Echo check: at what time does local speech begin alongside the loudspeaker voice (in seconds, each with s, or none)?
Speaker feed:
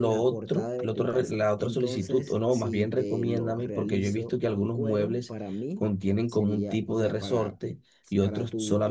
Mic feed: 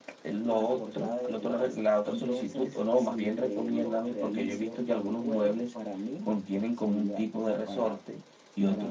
none